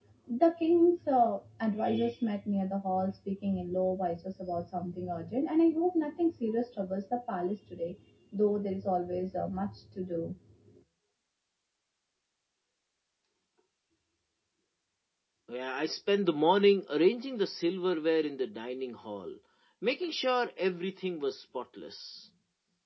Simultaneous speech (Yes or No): No